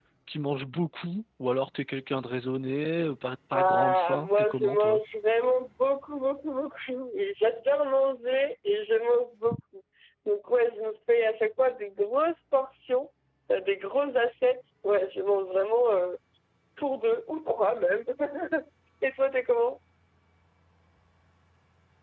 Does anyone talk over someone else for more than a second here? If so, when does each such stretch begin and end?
3.5-5.0

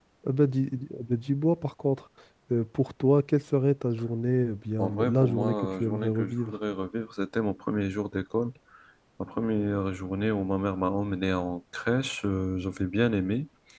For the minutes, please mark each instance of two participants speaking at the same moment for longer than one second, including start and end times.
4.8-6.6

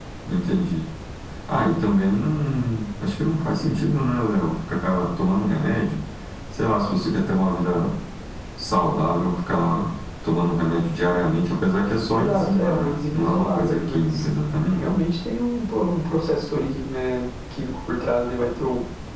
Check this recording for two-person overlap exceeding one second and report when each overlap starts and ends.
12.1-14.2

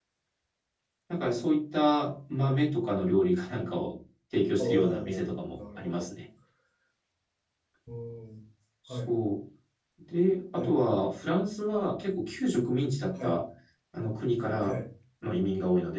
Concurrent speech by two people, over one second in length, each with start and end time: 4.6-6.1

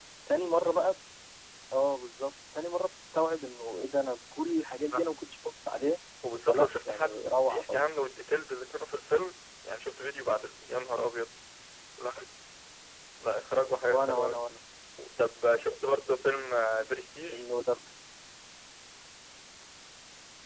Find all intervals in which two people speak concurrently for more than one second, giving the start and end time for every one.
6.4-7.8

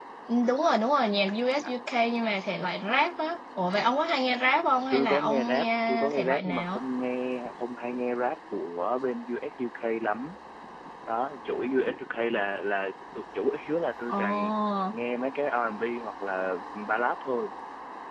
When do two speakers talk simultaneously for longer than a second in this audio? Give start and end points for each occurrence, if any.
4.9-6.8

